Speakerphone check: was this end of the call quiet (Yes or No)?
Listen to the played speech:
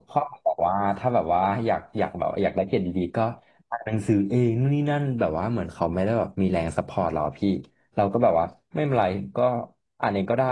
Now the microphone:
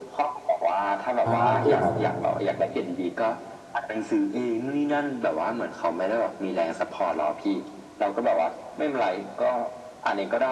No